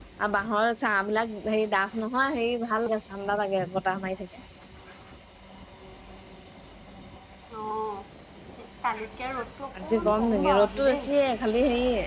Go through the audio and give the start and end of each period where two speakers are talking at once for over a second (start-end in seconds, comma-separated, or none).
9.8-11.1